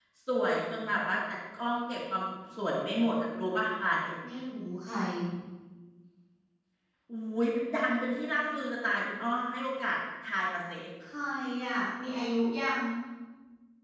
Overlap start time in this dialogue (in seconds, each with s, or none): none